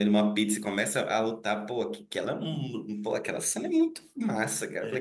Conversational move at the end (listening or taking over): listening